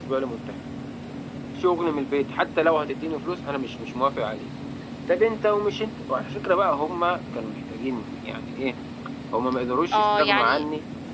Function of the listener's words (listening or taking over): taking over